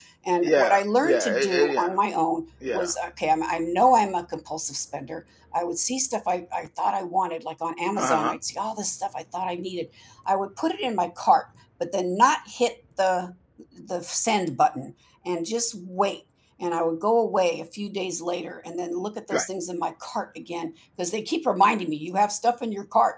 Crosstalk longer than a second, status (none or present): present